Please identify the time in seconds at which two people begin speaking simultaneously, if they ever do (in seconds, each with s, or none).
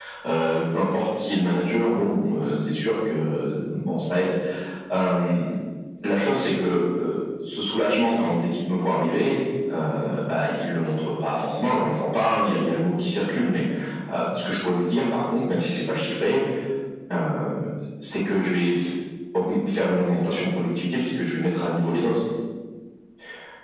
none